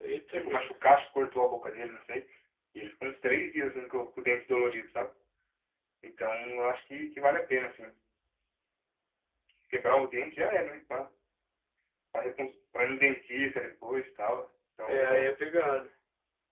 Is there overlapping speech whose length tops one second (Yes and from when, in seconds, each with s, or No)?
No